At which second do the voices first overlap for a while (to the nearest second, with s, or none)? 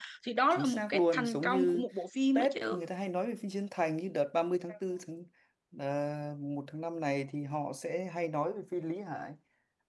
1 s